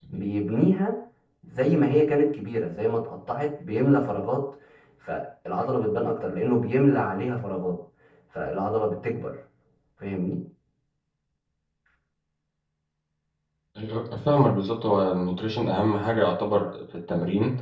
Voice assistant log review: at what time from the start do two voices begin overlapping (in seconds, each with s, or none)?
none